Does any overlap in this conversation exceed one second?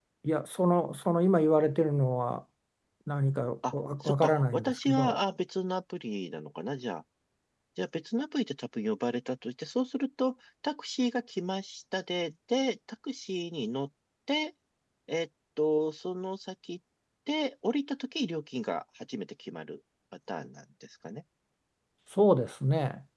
Yes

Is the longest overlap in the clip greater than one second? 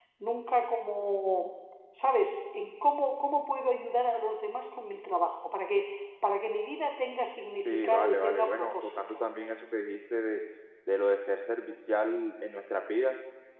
Yes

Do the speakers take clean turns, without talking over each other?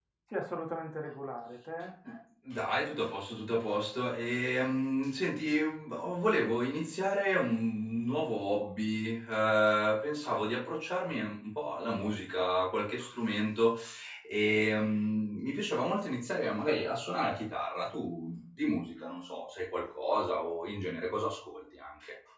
Yes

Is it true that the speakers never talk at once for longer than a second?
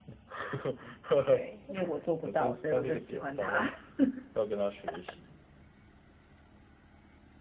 No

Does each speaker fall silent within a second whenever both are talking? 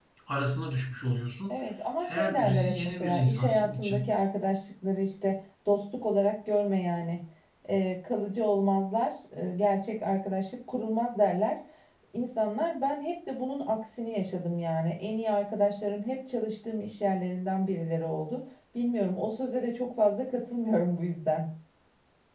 No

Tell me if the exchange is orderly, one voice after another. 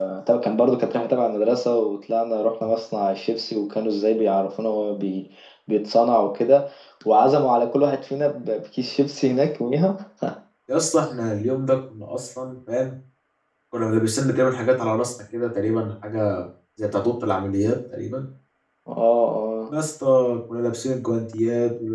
Yes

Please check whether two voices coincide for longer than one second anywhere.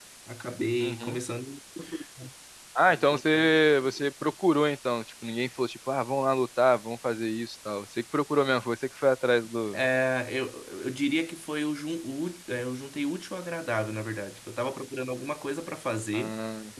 No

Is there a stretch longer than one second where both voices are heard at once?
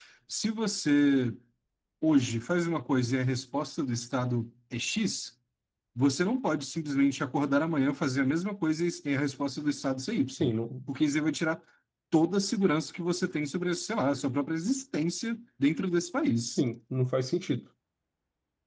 No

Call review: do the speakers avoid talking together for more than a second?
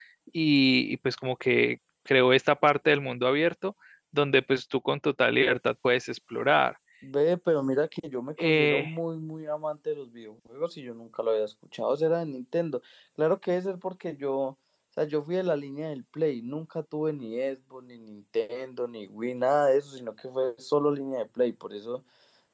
Yes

